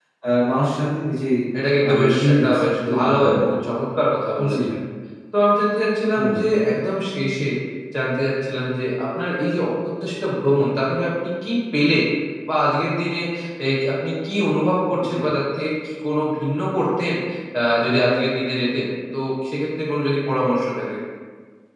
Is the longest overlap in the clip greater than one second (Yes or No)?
Yes